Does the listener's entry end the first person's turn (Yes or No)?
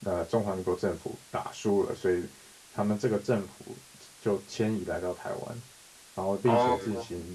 No